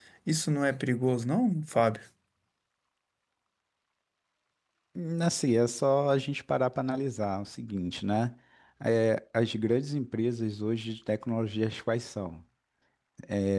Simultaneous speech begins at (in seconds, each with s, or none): none